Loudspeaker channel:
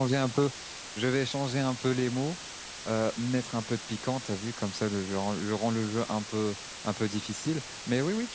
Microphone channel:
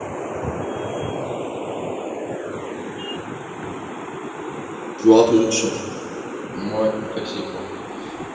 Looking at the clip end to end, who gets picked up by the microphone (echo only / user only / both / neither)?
user only